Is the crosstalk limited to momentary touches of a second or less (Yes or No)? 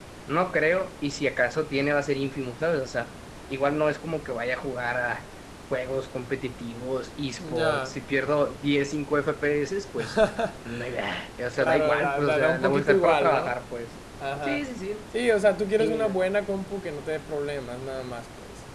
No